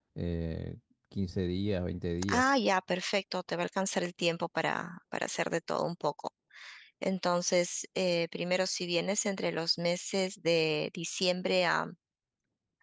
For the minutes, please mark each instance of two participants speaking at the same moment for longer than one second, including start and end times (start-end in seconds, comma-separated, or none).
none